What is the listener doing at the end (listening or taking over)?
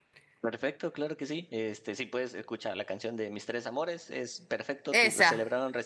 listening